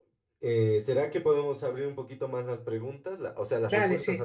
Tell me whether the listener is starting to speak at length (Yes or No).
Yes